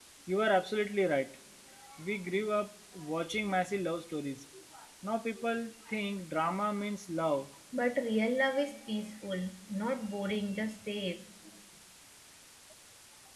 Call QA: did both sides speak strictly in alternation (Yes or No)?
Yes